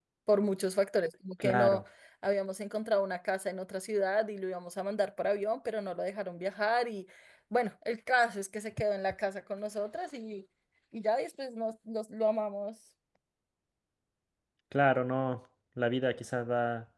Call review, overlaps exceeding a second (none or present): none